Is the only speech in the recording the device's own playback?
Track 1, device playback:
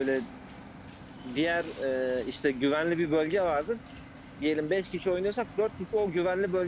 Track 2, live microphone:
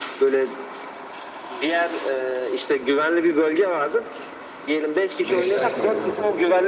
No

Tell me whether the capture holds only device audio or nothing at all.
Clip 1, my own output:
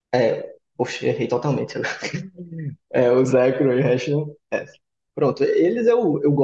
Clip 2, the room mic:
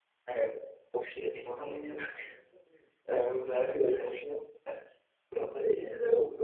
No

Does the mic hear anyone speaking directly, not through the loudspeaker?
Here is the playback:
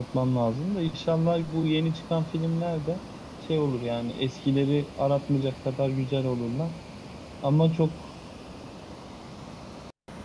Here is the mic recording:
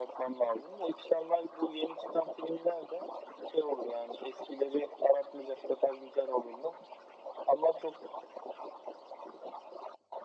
No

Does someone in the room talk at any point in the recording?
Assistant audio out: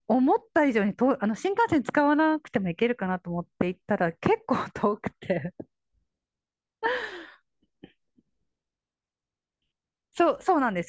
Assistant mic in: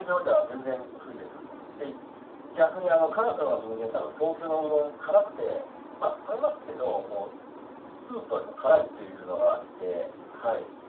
Yes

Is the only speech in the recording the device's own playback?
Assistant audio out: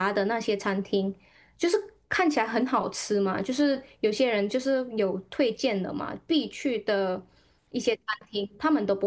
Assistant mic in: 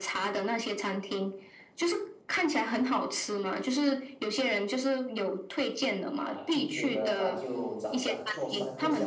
No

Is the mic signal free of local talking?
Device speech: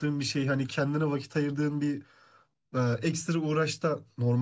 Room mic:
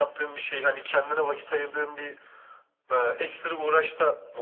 Yes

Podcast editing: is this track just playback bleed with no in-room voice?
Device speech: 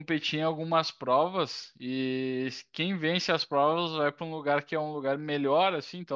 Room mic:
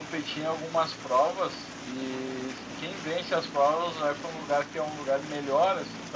Yes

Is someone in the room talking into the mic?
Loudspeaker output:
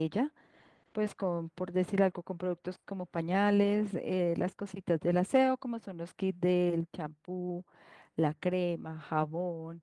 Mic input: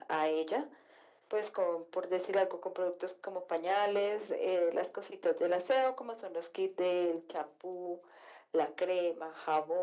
No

